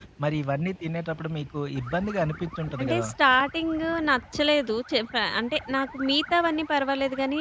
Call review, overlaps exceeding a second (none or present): none